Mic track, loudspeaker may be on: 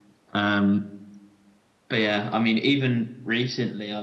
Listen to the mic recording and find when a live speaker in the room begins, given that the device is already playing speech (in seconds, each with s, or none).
none